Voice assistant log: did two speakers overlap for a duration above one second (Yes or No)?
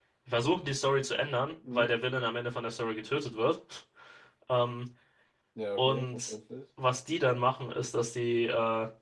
No